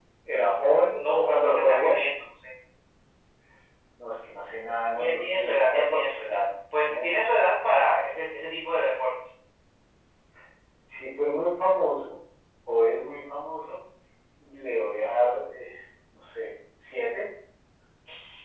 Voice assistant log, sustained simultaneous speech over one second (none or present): present